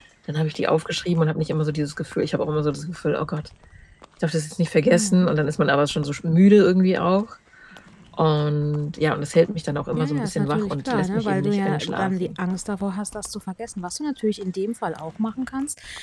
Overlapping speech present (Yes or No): Yes